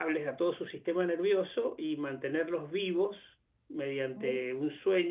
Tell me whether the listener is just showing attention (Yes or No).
Yes